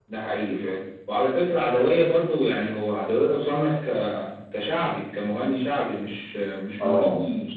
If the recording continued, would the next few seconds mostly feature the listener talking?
No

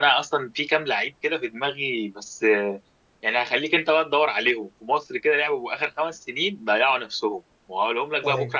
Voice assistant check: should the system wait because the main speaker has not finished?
Yes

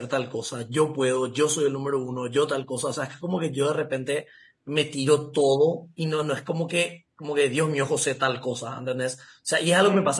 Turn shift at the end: No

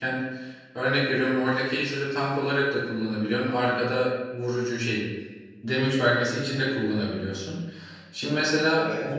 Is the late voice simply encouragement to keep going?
Yes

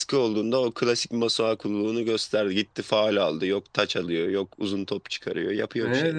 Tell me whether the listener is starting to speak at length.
Yes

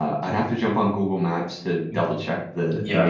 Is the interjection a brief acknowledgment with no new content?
Yes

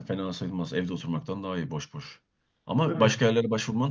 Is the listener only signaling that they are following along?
Yes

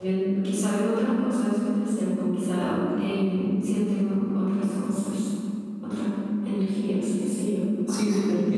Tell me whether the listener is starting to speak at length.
Yes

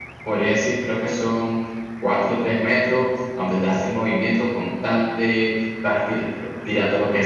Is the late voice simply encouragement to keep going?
Yes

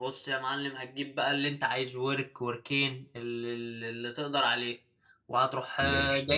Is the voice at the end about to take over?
No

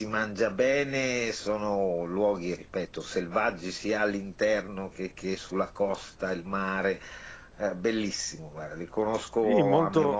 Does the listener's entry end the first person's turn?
Yes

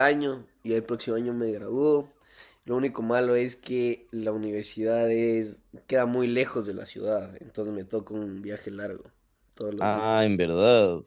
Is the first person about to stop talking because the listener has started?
Yes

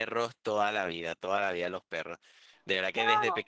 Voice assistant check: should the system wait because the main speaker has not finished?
Yes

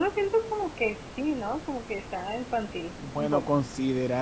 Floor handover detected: Yes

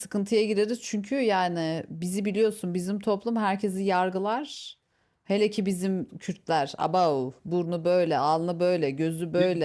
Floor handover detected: No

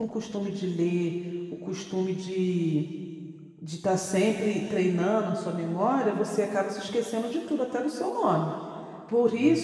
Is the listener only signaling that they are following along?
Yes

